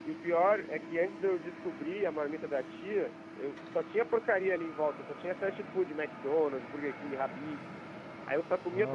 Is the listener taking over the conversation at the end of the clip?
No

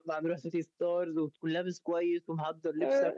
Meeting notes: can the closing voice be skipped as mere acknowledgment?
Yes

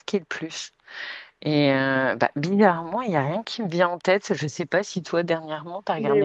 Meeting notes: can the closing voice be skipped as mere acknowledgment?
No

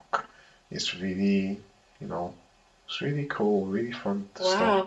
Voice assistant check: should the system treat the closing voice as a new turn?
Yes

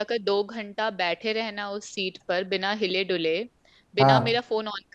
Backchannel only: Yes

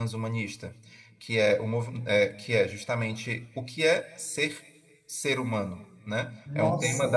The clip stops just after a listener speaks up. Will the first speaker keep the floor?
Yes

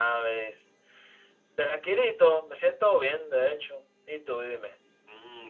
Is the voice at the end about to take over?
Yes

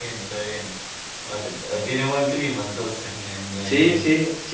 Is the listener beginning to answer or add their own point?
Yes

